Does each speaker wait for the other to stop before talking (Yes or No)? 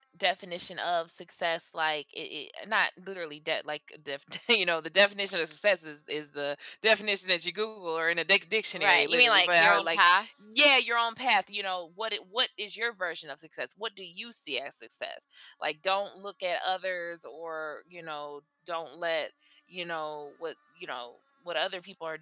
No